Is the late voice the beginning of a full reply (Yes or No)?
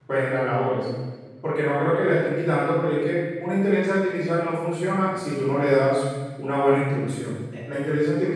No